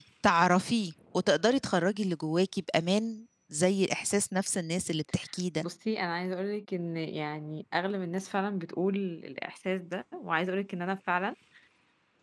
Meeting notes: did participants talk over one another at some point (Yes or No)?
No